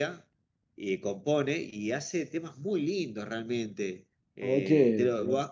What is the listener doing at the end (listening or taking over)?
listening